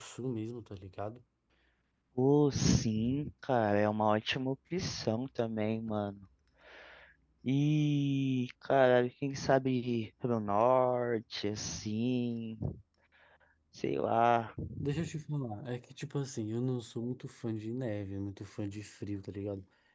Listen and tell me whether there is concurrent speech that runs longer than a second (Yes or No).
No